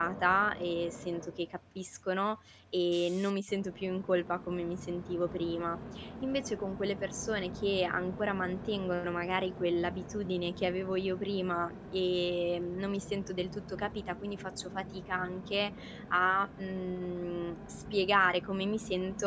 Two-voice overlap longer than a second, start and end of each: none

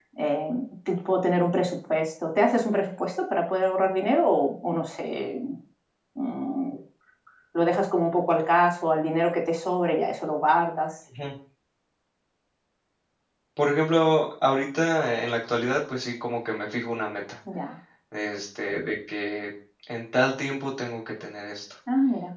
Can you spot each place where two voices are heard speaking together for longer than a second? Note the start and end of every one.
none

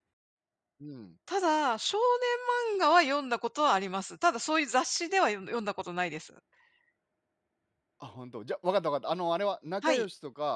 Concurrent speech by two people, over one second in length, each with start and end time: none

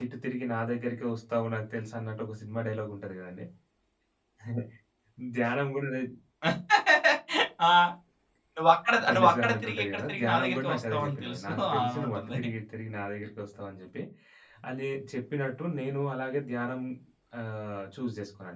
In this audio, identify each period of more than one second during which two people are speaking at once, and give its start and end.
9.1-12.4

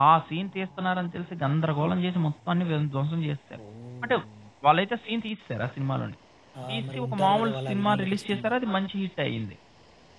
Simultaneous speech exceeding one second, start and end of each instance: 6.7-8.5

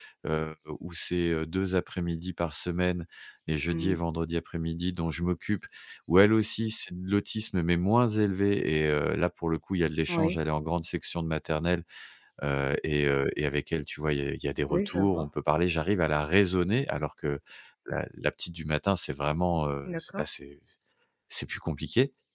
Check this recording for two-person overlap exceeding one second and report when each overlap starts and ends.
none

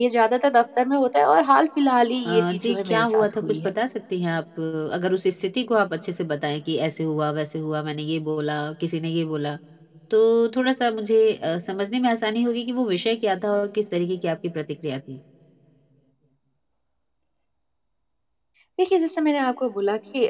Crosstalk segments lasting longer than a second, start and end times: 2.2-3.7

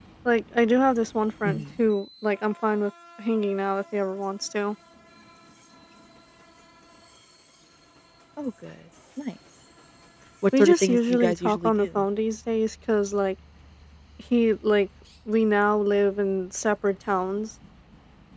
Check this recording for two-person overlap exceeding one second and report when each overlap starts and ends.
10.6-12.0

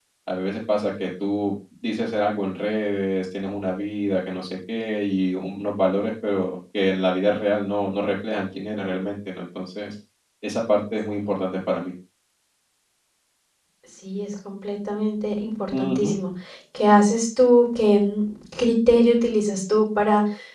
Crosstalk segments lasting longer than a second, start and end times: none

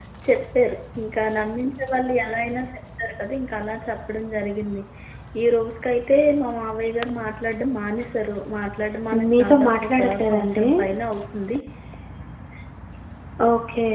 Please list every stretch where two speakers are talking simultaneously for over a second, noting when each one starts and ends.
9.4-10.7

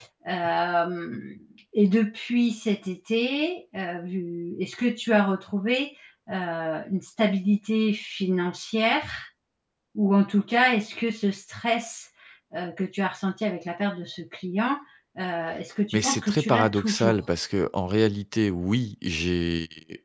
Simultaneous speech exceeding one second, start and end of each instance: 15.9-17.1

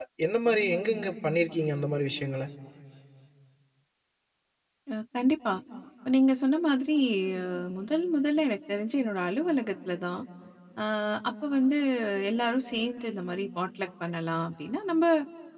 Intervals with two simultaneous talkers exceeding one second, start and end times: none

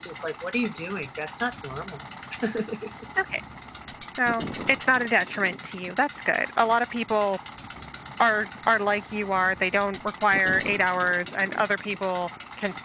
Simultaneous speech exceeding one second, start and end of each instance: none

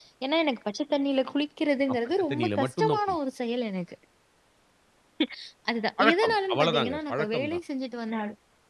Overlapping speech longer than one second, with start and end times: 1.9-3.2, 6.0-7.6

